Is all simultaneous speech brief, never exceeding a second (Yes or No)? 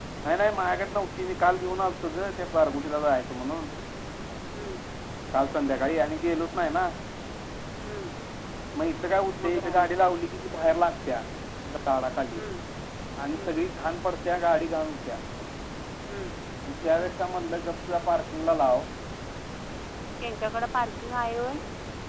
Yes